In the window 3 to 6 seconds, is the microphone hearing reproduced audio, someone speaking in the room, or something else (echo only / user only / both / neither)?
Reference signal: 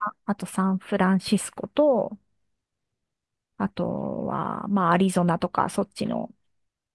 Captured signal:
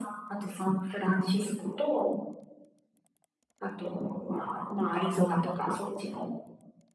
echo only